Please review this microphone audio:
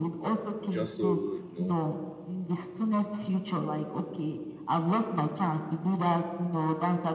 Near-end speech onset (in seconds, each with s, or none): 0.7 s